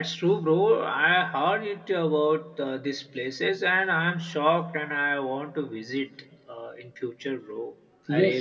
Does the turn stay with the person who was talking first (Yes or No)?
No